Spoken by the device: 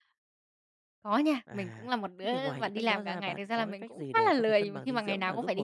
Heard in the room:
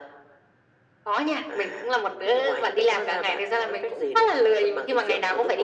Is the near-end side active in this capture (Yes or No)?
No